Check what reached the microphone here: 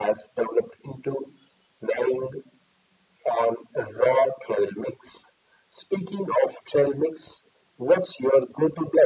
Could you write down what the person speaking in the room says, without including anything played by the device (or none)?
none